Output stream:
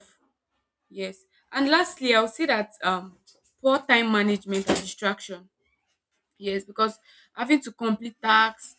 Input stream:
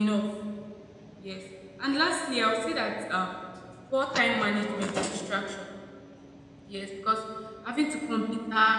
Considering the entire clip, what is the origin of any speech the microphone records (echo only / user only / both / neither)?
both